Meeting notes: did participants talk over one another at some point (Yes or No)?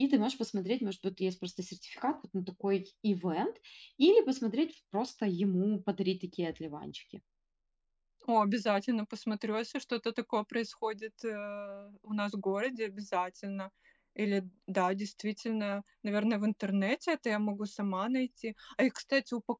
No